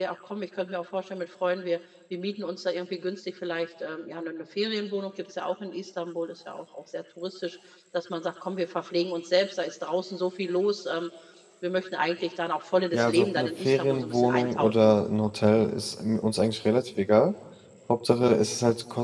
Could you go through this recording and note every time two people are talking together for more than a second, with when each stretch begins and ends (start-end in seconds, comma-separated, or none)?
12.9-14.9